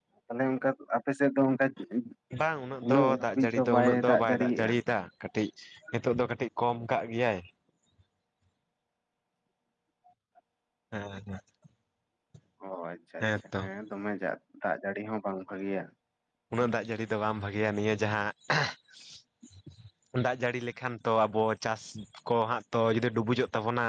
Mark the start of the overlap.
2.8 s

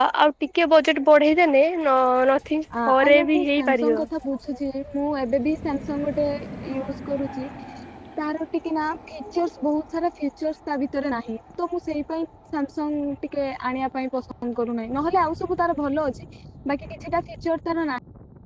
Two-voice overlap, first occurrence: 2.7 s

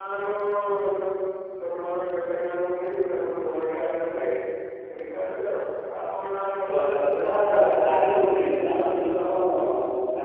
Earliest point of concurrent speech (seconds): 6.7 s

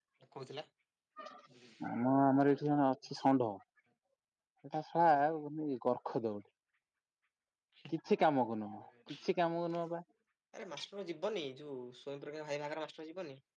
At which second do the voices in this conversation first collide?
none

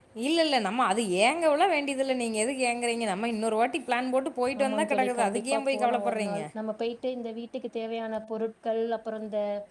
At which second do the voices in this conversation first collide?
4.5 s

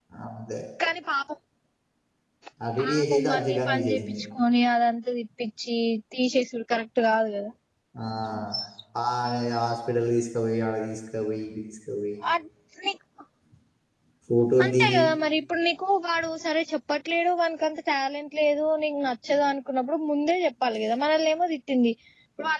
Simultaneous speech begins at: 2.8 s

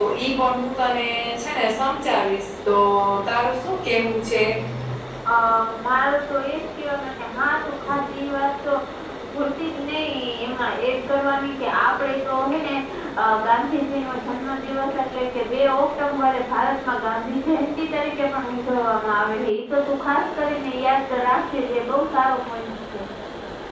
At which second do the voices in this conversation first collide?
none

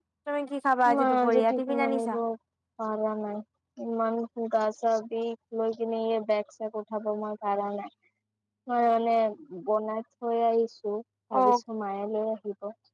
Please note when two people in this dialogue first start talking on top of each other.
1.0 s

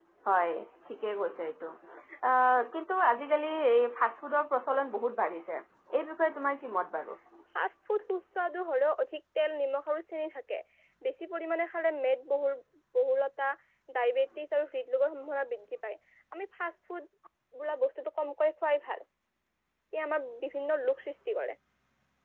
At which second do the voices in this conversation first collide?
none

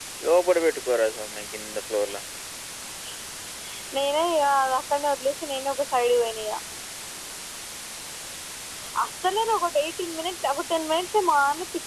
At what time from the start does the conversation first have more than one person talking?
none

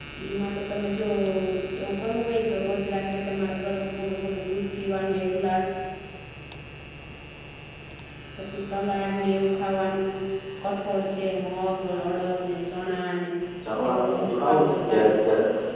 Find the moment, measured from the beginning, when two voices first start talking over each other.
13.9 s

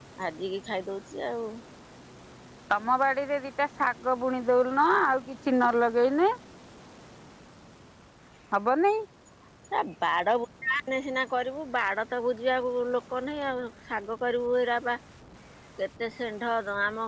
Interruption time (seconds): none

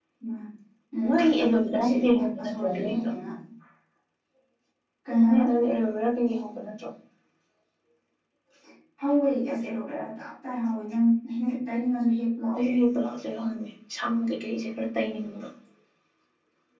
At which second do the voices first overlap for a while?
1.7 s

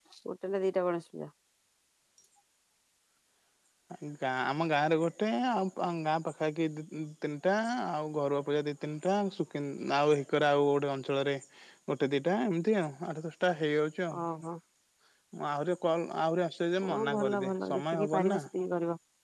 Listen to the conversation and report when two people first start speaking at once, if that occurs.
16.8 s

